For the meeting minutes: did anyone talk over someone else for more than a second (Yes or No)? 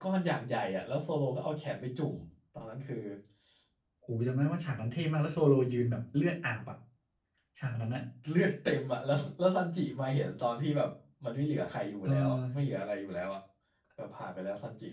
No